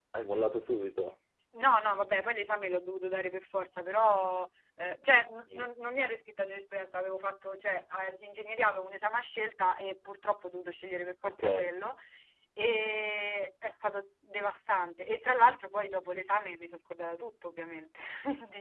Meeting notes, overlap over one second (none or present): none